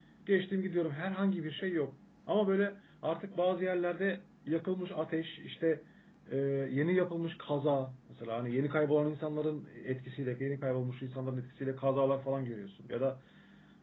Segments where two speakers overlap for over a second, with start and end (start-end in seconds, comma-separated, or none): none